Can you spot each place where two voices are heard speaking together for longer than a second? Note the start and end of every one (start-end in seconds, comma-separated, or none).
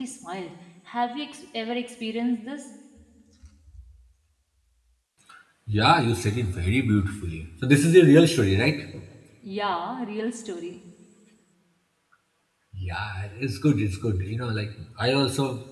none